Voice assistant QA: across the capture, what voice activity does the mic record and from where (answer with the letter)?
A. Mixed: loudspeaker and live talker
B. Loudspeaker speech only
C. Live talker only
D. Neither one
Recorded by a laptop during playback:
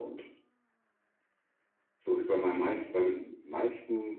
B